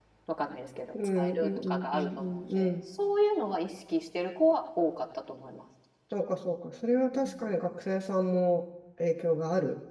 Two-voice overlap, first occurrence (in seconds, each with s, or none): 1.0 s